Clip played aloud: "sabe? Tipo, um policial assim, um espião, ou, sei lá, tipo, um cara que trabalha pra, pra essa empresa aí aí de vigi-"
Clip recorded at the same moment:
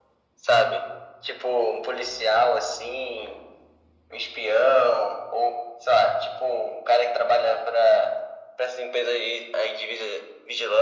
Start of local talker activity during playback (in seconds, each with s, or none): none